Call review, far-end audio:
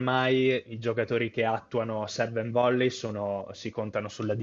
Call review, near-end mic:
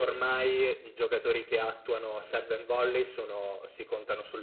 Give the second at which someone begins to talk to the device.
none

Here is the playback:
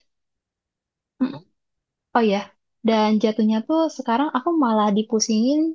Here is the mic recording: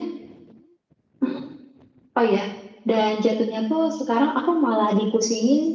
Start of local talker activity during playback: none

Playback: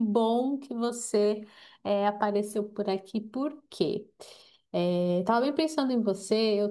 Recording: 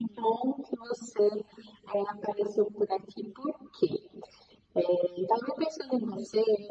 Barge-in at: none

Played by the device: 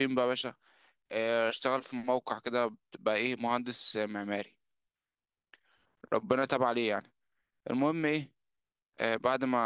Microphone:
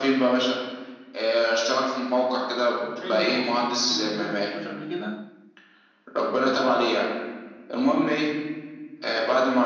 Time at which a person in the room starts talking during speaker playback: 3 s

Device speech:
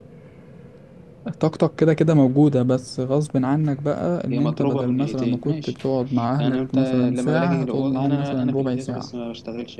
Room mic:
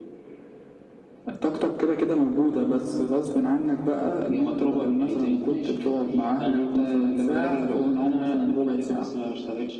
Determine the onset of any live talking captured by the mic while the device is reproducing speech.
none

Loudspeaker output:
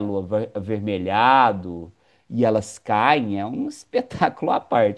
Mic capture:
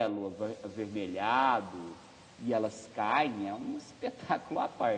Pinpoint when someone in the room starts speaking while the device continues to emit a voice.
none

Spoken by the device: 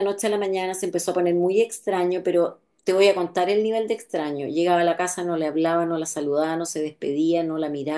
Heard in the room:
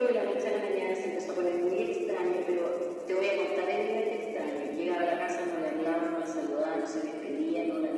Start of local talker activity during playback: none

